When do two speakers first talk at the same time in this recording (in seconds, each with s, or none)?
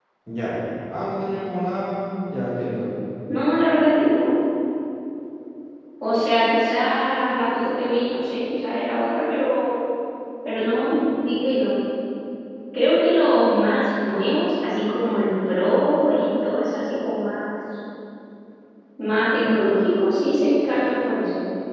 none